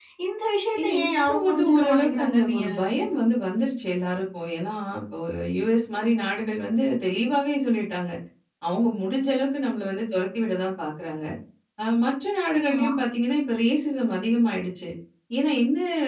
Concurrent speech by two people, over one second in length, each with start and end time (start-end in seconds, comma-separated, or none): 0.8-3.1